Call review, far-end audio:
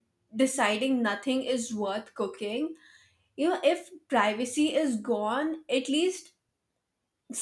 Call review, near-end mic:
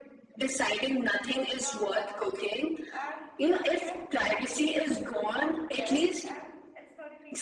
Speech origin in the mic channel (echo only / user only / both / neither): both